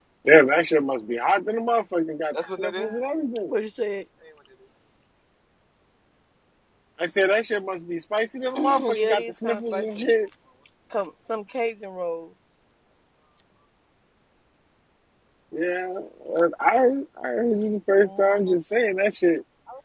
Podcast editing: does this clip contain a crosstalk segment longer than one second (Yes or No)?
Yes